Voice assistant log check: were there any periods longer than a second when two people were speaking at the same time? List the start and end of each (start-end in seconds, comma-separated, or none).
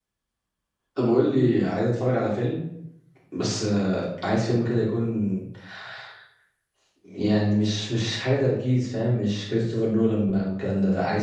none